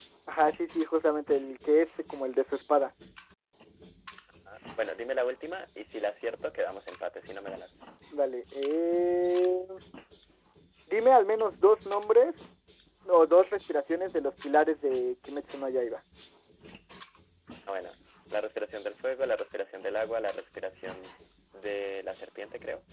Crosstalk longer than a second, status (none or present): none